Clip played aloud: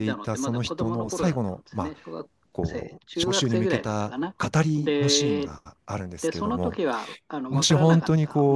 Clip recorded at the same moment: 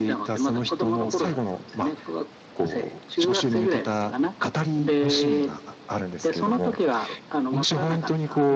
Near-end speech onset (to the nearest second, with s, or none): none